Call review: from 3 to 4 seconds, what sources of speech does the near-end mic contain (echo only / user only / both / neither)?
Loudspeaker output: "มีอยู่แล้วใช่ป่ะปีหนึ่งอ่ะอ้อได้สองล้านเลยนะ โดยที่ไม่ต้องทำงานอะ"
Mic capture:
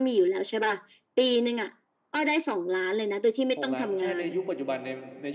both